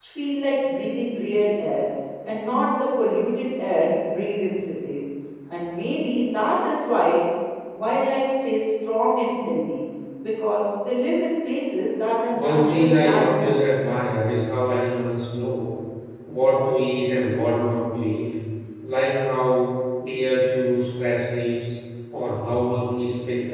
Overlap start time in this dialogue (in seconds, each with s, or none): 12.3 s